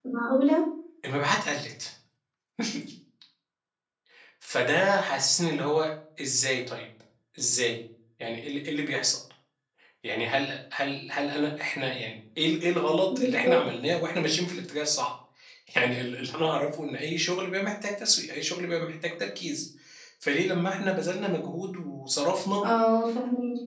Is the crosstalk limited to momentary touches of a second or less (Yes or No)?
Yes